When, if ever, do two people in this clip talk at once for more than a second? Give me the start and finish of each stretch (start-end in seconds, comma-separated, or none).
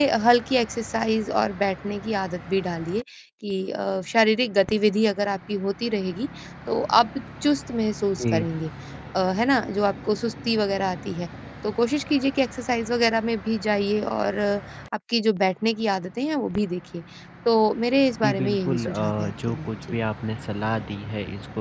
18.2-20.0